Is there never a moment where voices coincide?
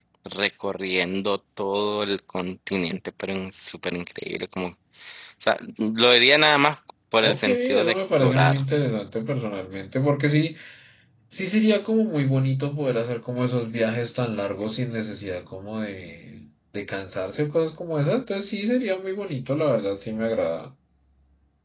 No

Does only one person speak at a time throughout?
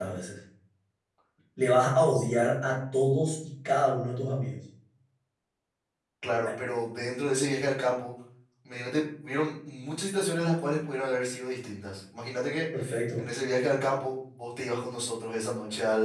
Yes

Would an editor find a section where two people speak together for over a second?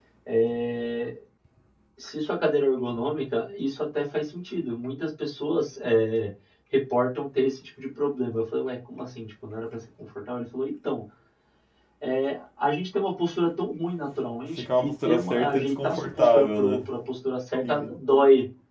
Yes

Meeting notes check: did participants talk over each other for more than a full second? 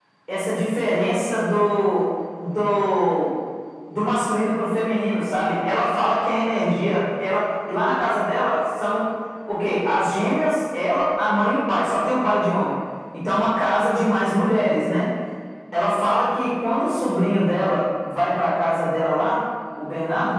No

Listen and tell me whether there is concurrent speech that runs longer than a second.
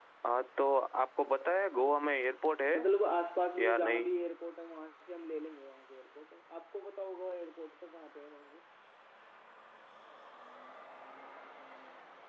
No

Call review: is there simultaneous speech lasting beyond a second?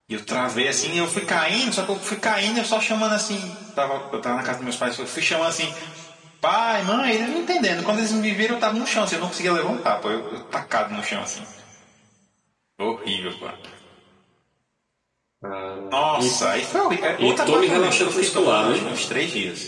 Yes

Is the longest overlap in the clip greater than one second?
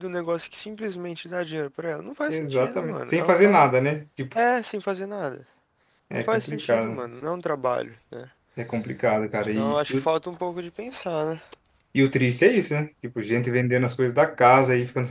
Yes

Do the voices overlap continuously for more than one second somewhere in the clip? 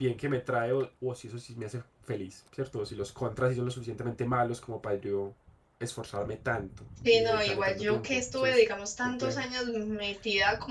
Yes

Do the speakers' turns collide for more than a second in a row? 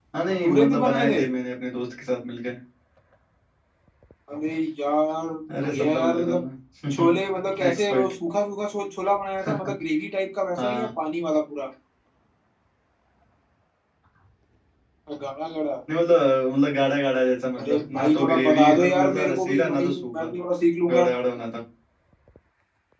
Yes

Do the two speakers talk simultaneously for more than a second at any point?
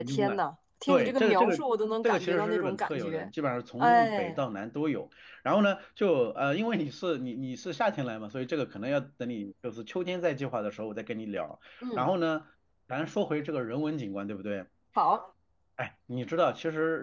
Yes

